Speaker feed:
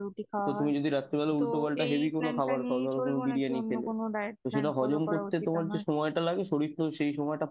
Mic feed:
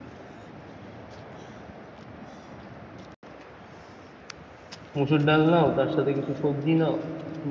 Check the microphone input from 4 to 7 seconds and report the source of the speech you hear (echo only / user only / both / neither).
user only